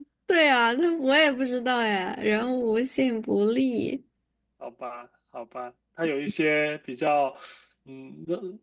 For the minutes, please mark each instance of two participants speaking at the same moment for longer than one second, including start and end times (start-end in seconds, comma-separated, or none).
none